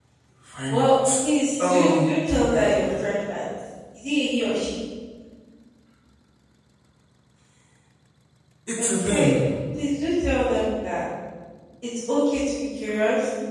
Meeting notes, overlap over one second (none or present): present